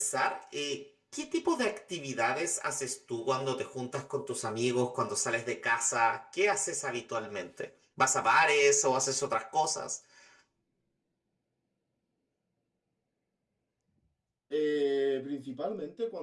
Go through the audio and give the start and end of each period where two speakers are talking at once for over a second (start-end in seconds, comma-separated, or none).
none